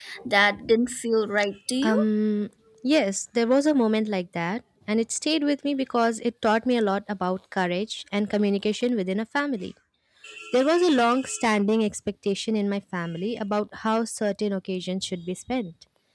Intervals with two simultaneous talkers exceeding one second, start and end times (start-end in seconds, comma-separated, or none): none